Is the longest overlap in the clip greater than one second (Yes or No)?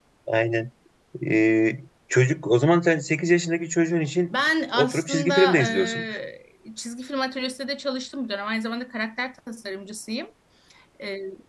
Yes